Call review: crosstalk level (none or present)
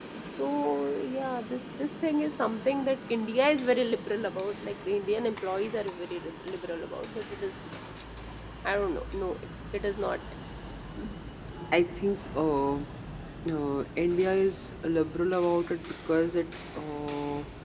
none